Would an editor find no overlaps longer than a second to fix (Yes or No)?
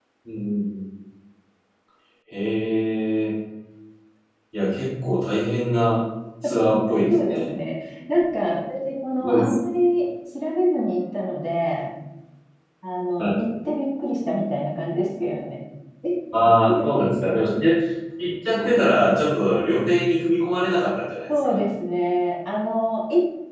Yes